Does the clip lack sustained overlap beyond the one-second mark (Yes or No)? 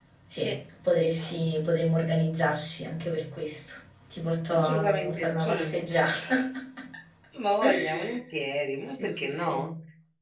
No